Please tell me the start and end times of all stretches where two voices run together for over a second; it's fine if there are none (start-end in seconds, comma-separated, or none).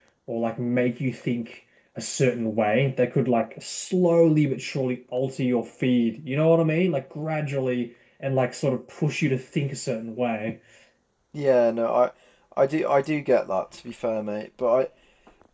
none